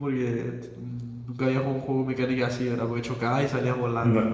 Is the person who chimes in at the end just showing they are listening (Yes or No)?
No